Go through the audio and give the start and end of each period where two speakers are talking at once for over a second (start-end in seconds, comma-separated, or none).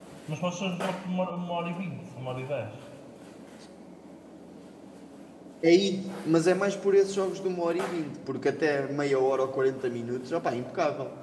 none